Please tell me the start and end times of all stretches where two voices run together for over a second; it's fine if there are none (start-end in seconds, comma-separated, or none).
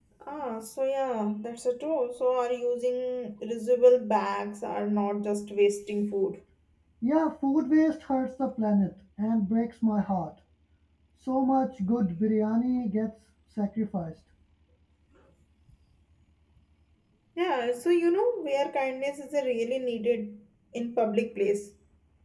none